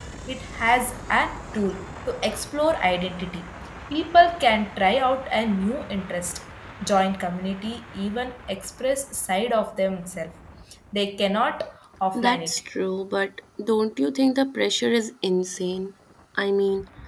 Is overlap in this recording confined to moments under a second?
Yes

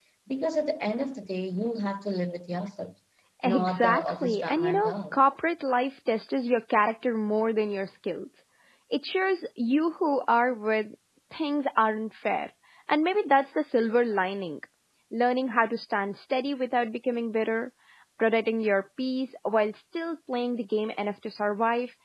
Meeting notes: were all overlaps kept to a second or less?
No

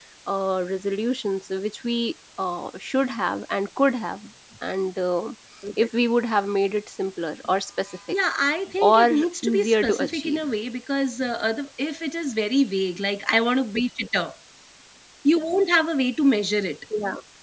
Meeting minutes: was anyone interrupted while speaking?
Yes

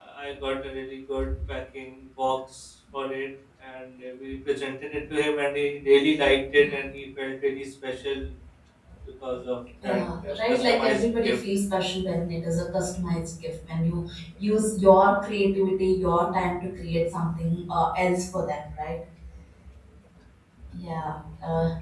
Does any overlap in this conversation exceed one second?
Yes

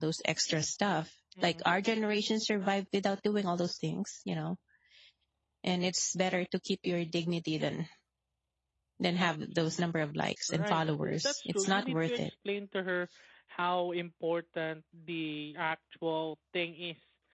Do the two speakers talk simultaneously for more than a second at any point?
Yes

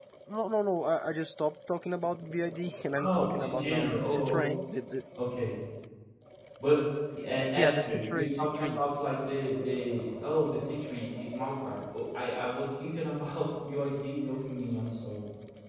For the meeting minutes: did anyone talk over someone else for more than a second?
Yes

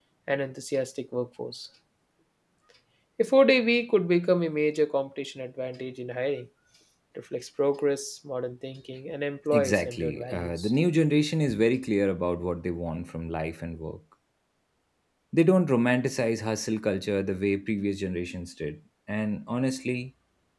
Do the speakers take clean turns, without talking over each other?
No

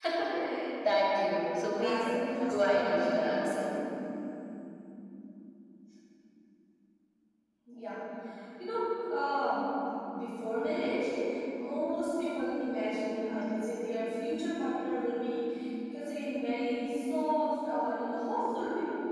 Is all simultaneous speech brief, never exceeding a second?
No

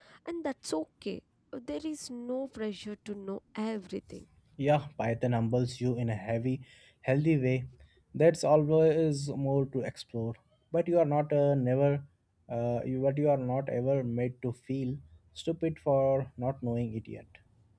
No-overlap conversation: Yes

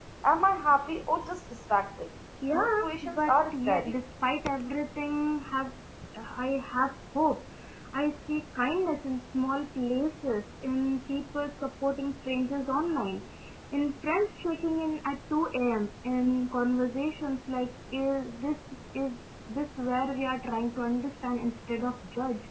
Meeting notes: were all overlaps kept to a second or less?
No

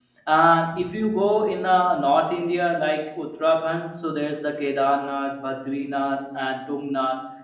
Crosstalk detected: No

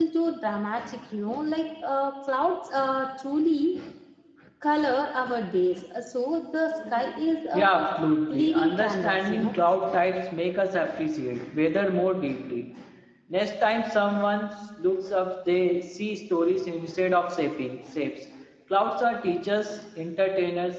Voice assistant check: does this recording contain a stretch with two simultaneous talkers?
Yes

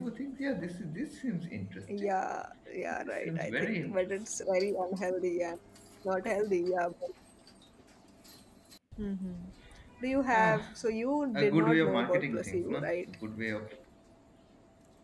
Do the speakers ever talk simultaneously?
Yes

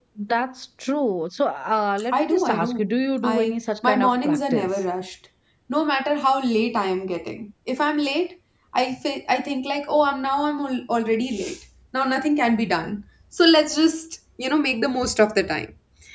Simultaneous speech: Yes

